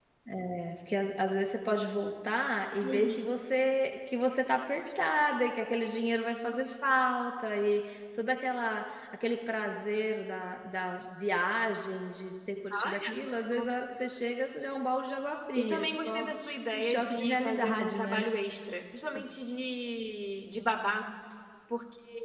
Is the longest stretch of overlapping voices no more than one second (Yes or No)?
No